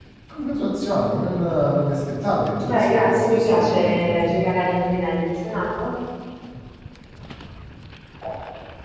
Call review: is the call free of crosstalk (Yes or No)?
No